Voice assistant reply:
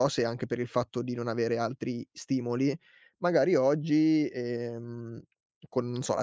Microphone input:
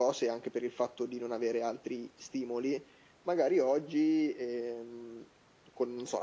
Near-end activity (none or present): none